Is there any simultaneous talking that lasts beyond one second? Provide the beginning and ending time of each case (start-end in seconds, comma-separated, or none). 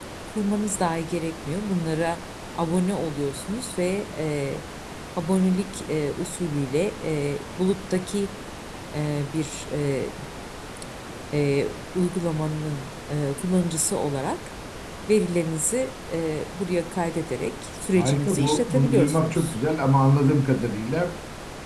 17.9-19.5